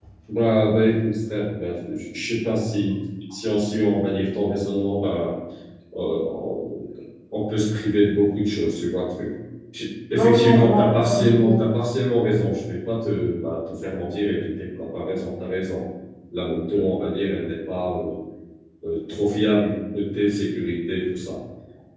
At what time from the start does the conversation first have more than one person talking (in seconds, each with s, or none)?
10.1 s